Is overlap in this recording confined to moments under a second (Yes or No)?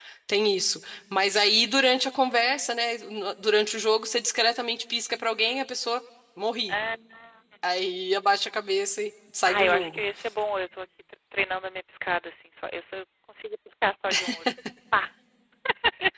Yes